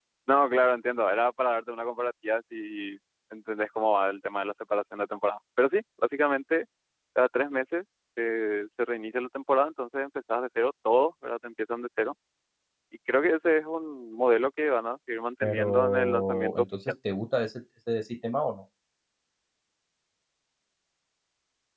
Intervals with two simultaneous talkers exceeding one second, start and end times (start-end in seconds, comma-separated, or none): 15.4-16.9